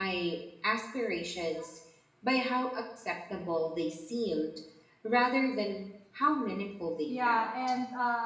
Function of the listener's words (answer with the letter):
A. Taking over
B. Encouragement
A